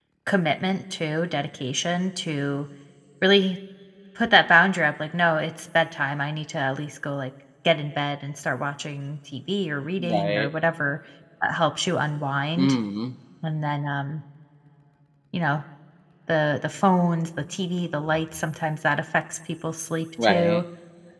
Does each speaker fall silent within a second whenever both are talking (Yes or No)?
Yes